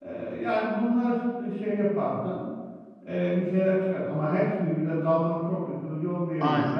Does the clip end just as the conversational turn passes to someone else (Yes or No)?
No